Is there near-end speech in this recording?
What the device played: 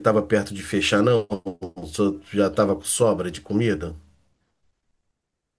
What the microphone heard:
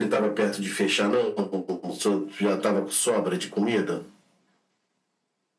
No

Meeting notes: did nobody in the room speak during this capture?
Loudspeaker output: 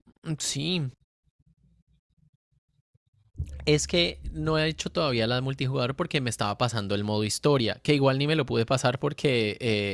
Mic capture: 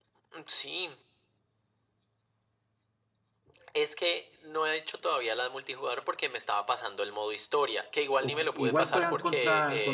No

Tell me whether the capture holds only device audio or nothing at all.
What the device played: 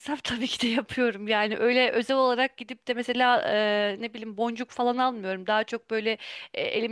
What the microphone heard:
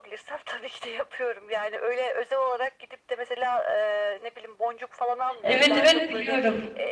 No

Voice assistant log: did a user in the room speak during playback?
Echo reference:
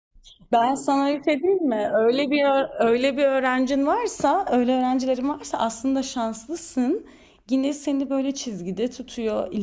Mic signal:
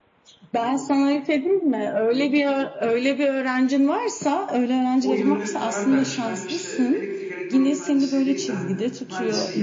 Yes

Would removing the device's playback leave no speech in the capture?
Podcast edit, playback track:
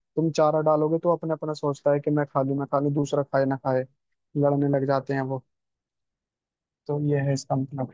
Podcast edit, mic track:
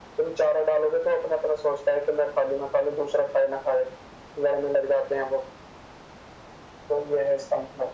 Yes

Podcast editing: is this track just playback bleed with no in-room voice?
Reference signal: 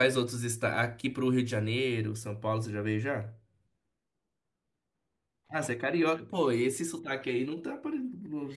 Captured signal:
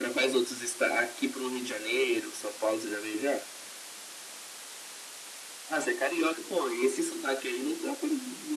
Yes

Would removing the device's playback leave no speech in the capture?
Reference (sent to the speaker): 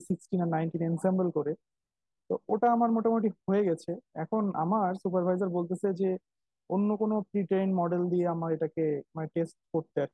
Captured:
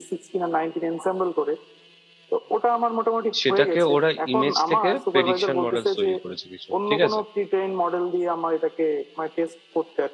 No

